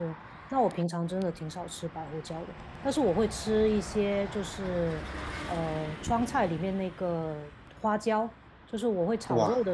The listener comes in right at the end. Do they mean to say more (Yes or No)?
No